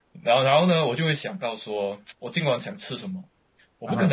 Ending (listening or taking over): listening